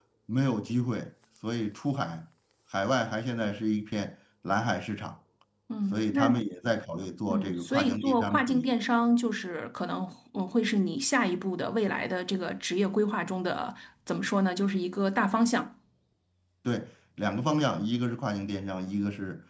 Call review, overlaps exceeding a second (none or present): present